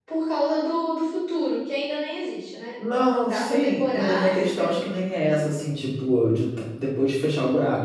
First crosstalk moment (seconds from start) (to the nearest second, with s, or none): 3 s